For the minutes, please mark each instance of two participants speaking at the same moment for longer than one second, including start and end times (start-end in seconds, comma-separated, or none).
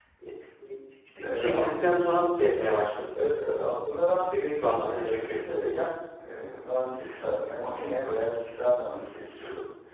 none